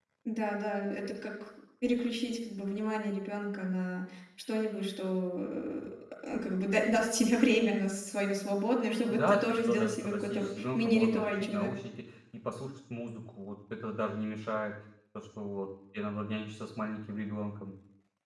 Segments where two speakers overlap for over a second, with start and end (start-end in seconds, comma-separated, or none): 9.1-11.7